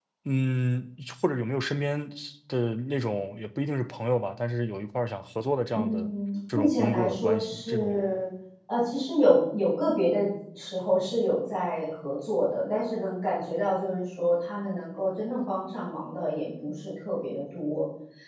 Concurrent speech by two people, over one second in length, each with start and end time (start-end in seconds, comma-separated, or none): 6.5-8.2